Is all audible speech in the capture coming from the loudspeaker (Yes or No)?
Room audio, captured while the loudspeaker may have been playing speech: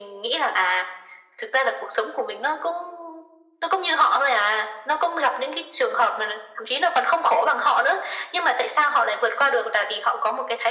Yes